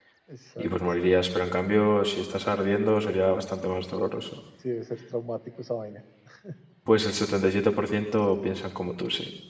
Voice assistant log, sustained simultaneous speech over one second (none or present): none